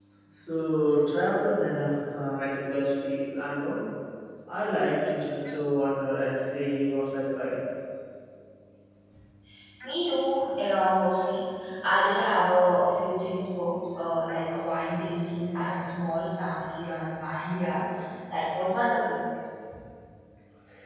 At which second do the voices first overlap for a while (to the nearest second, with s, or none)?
none